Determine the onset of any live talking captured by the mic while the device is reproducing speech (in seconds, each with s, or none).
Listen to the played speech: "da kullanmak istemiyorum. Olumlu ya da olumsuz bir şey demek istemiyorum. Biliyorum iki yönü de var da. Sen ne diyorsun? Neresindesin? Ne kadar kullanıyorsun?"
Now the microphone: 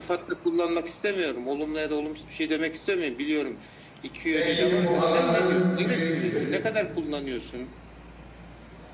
4.2 s